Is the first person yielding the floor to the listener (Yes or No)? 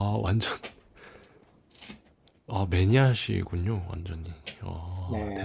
Yes